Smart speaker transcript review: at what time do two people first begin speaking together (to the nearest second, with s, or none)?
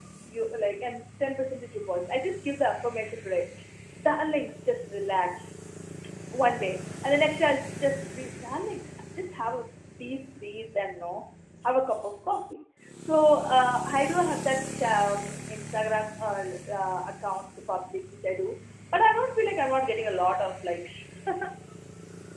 none